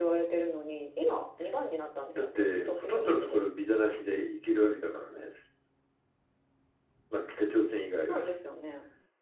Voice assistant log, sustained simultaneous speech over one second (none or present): present